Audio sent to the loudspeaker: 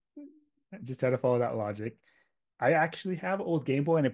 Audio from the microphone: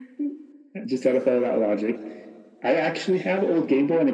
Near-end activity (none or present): none